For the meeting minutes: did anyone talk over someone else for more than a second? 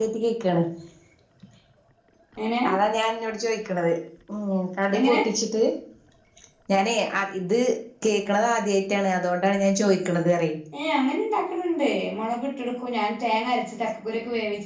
No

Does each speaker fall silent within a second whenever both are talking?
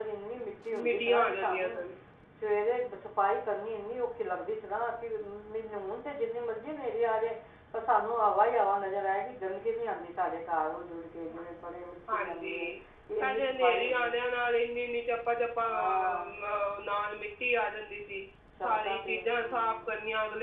No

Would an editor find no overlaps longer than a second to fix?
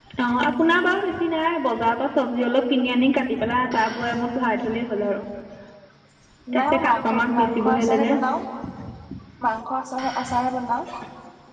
No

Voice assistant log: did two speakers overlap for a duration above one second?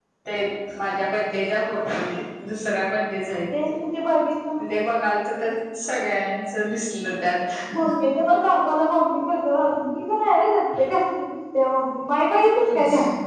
No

